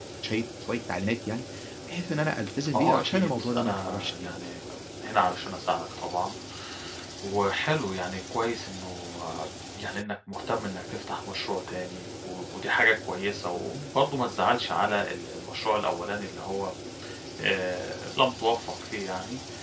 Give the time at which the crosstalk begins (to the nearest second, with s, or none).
3 s